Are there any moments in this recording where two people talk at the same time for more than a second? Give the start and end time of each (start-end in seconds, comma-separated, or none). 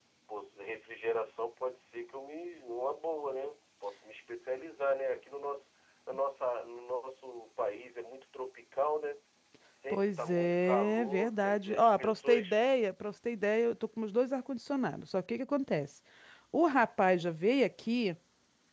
9.9-12.6